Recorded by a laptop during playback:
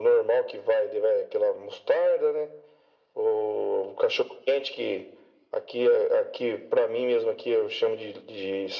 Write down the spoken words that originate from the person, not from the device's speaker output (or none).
none